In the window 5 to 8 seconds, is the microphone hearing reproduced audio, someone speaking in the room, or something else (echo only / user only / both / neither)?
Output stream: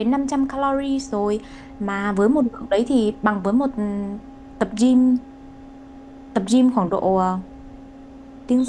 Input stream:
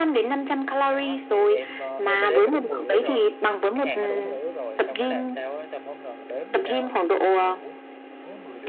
both